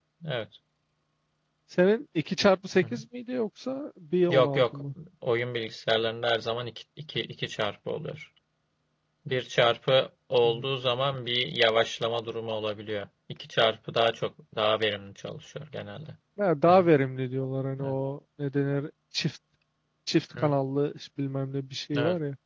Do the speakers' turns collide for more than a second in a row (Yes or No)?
No